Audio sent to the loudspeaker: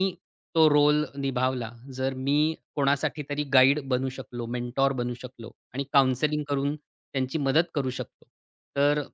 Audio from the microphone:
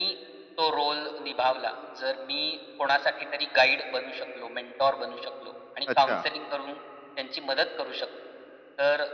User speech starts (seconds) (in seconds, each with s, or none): 5.9 s